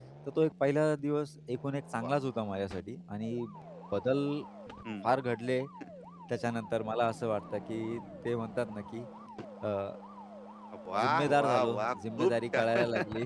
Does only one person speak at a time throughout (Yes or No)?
No